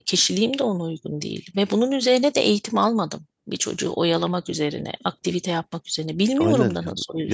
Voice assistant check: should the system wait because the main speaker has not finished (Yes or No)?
No